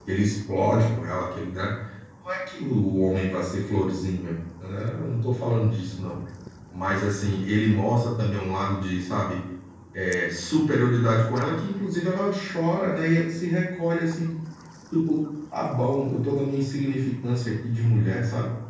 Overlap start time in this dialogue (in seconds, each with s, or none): none